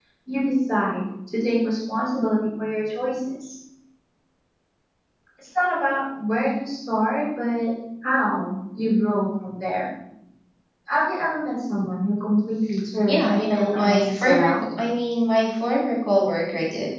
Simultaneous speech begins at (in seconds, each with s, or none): 13.1 s